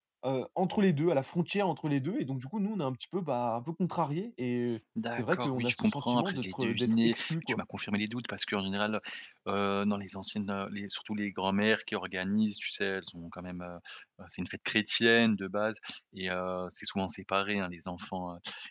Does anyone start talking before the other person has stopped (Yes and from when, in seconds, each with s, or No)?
Yes, from 5.0 s